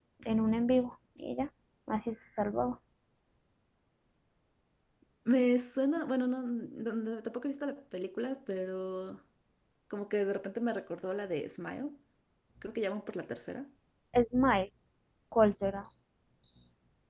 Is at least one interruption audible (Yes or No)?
No